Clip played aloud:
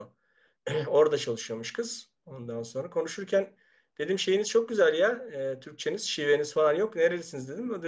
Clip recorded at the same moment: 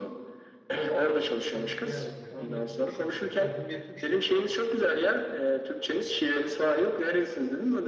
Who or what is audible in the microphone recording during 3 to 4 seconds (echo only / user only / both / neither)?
both